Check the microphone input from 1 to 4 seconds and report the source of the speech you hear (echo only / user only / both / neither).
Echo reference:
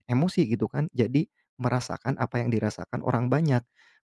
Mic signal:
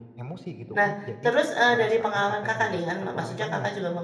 both